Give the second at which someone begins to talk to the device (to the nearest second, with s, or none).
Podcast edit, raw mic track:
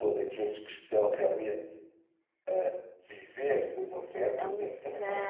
4 s